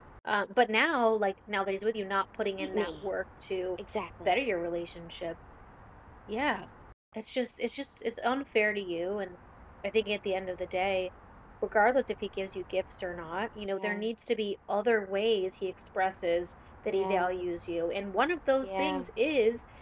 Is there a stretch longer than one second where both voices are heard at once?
No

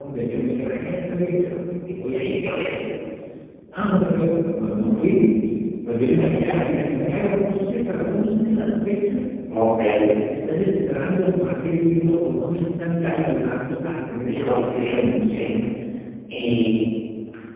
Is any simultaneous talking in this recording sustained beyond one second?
Yes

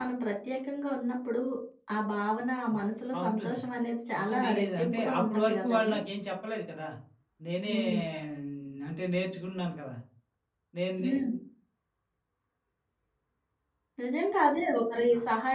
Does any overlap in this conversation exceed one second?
Yes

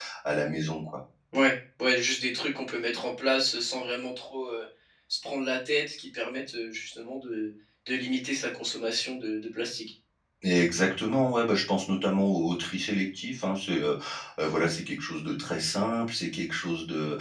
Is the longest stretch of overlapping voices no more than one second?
Yes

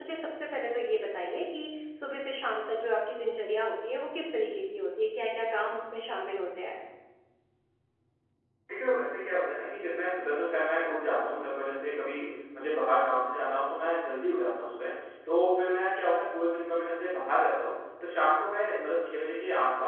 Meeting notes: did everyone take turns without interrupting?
Yes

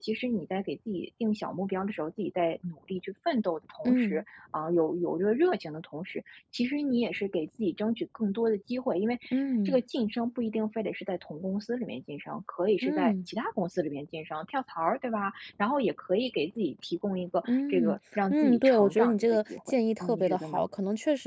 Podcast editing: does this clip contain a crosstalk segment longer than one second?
Yes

